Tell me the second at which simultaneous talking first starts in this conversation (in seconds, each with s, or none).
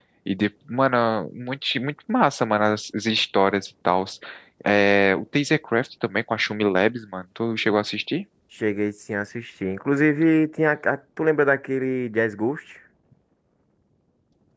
none